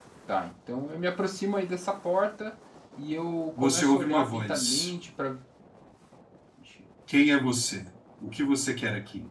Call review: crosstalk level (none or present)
present